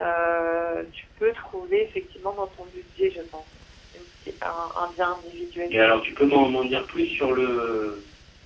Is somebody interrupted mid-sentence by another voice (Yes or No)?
No